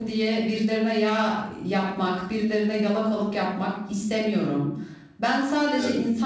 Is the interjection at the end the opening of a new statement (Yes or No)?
No